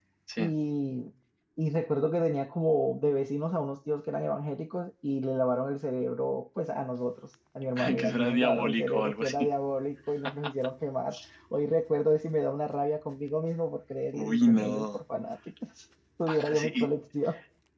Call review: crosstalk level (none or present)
present